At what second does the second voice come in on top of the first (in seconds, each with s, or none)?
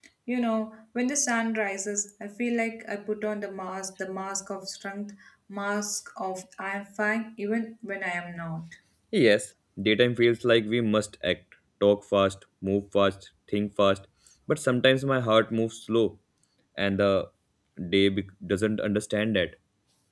none